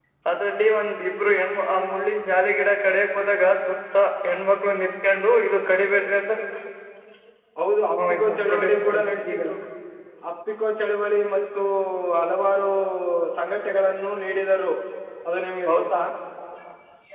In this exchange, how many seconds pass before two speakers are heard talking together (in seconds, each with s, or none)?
8.1 s